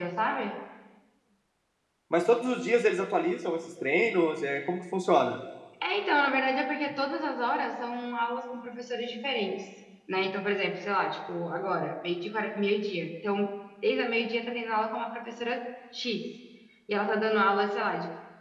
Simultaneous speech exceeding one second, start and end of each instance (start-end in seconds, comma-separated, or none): none